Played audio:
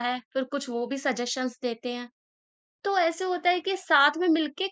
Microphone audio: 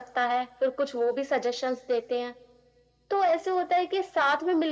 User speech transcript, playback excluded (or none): none